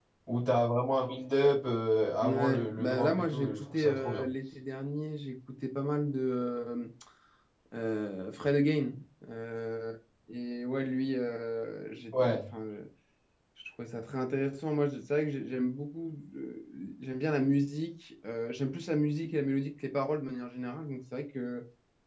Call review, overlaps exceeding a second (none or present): present